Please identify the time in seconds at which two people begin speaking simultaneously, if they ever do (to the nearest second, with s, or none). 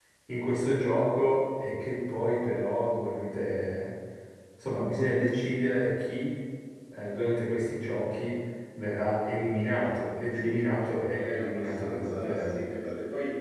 10 s